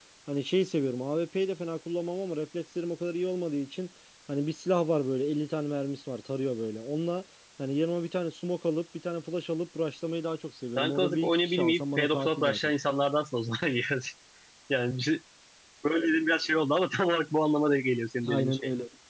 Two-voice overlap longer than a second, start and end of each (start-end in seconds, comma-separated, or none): 10.8-12.6